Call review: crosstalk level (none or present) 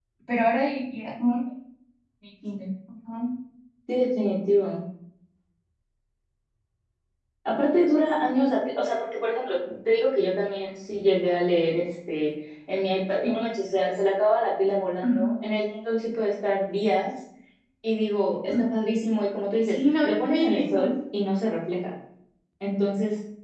present